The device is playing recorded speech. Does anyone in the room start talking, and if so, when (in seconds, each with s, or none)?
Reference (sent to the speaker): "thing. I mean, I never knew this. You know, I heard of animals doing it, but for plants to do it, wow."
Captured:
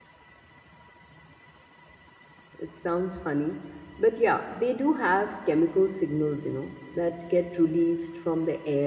2.6 s